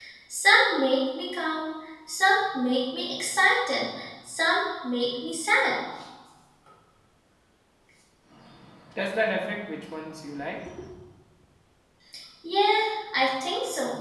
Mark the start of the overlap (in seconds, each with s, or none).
none